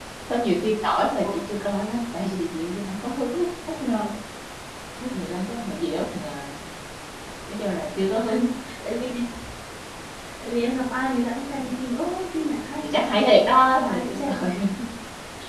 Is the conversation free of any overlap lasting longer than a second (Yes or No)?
No